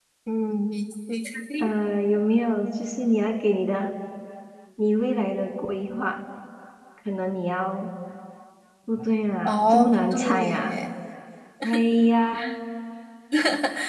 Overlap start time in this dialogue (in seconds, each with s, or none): 9.4 s